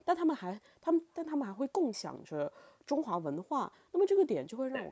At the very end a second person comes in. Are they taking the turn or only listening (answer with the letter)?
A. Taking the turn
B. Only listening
B